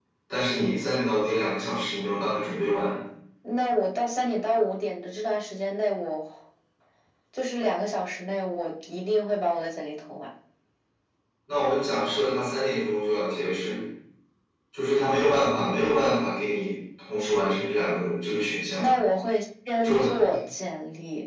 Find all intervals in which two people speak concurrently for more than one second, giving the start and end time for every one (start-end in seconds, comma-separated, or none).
none